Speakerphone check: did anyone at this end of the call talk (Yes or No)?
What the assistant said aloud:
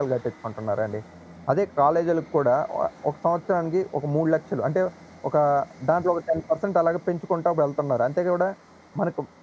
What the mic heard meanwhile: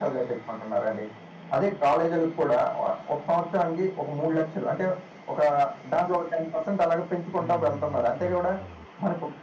Yes